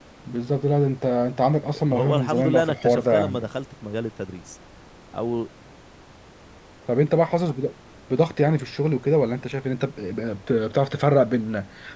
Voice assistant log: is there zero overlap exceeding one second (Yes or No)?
No